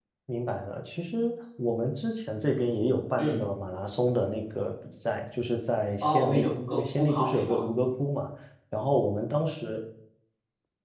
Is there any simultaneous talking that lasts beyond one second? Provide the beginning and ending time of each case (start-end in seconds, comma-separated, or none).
6.0-7.6